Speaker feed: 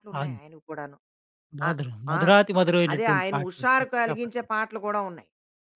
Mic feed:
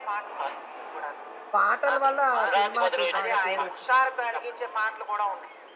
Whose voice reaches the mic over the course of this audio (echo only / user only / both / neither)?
both